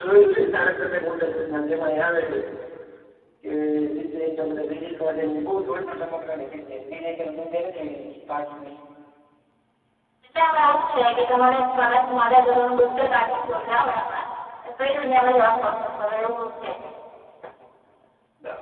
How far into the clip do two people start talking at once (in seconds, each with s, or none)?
none